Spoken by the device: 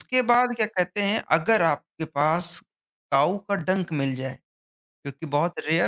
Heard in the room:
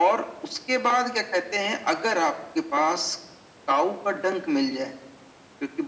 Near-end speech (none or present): none